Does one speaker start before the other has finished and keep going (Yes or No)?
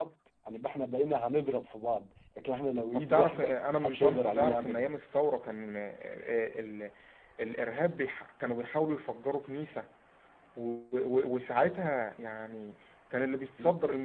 Yes